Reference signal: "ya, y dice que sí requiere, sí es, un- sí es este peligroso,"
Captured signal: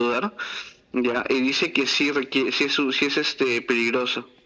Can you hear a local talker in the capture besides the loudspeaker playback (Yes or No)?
No